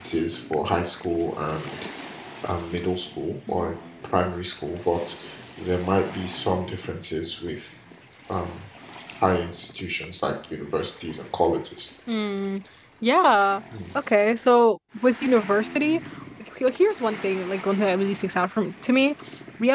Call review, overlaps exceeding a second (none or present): none